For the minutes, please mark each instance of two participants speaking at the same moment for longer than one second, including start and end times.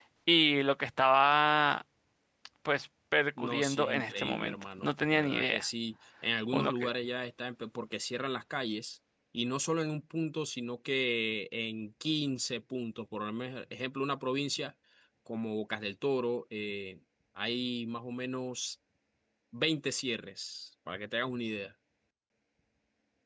3.4-5.6

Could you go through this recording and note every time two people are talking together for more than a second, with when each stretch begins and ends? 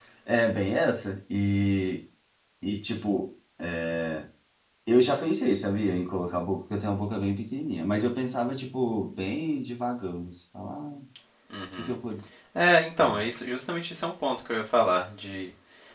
none

